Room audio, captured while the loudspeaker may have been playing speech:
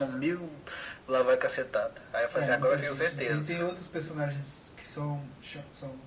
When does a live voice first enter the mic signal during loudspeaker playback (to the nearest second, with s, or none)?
2 s